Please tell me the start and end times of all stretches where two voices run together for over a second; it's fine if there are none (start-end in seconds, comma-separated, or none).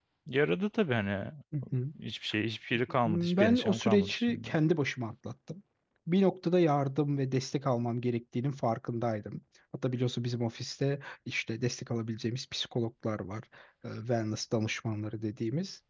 3.0-4.5